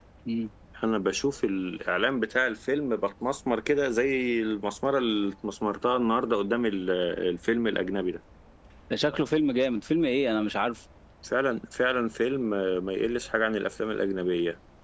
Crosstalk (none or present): none